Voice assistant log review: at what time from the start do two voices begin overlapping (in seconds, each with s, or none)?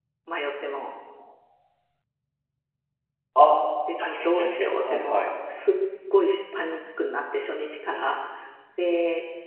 4.0 s